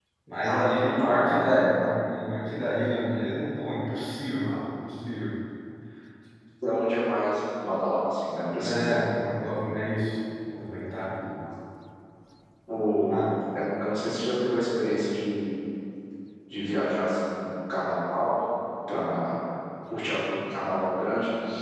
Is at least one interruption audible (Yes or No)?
Yes